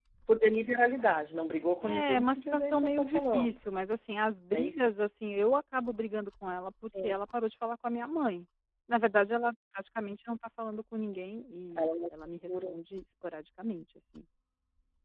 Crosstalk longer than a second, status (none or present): present